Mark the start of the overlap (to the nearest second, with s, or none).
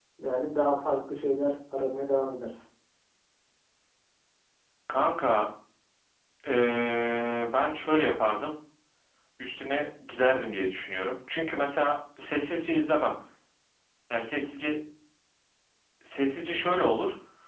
none